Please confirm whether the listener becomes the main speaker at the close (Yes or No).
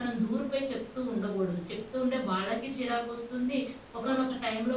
No